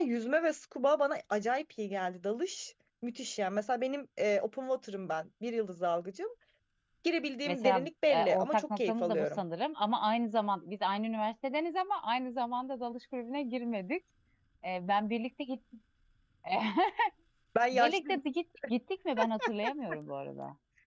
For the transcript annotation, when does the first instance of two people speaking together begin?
7.5 s

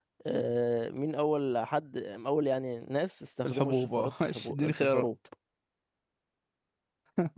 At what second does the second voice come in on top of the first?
3.4 s

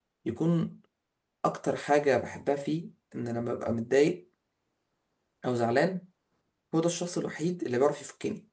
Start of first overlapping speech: none

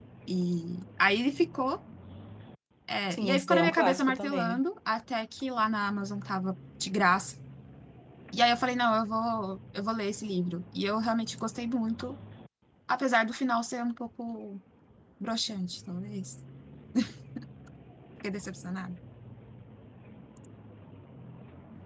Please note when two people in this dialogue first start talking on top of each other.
3.1 s

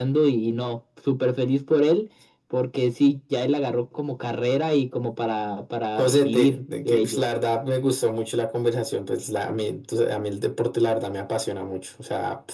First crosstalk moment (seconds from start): 6.0 s

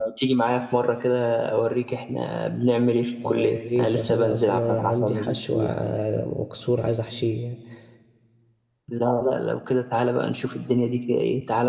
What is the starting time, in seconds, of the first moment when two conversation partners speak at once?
3.2 s

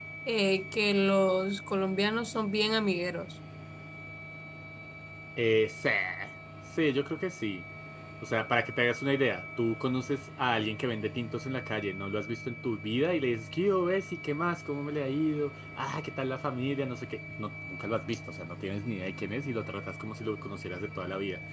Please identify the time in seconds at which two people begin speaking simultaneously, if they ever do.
none

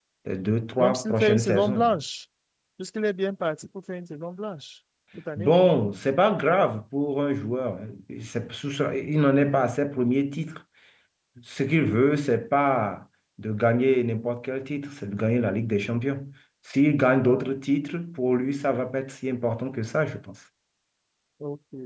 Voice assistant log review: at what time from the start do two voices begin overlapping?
0.8 s

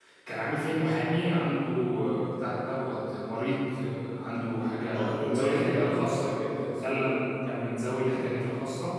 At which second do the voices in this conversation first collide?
4.7 s

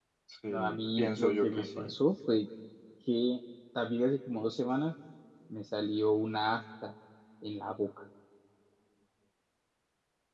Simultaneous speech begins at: 0.5 s

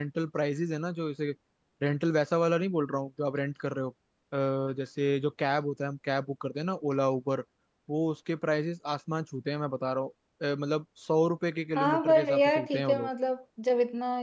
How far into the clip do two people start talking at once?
11.8 s

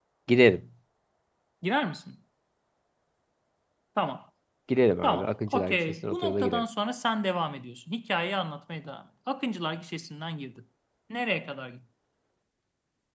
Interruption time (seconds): 5.0 s

